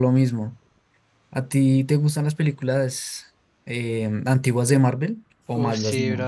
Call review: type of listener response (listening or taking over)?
taking over